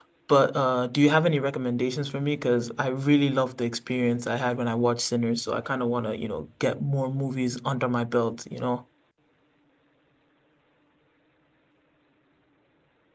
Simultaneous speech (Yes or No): No